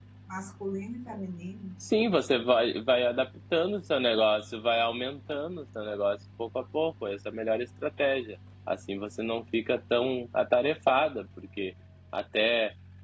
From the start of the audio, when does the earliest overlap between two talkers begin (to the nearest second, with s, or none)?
none